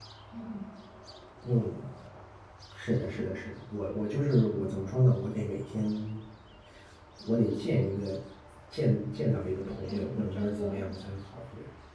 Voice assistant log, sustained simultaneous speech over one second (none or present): present